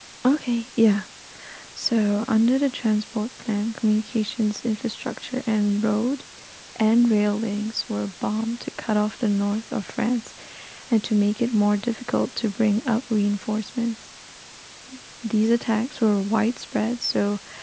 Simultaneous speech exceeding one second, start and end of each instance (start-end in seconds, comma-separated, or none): none